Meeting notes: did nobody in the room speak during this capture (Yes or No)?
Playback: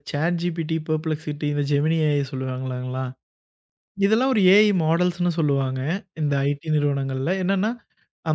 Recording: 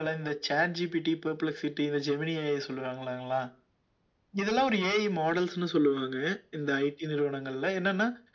Yes